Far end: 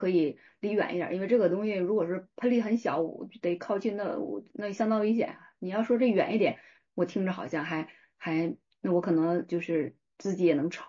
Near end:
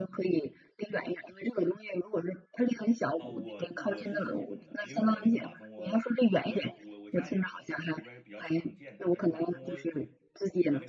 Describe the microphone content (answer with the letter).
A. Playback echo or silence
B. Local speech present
B